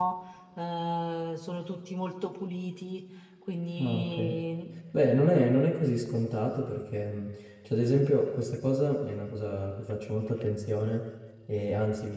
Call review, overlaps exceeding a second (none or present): none